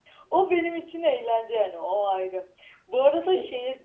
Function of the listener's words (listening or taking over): listening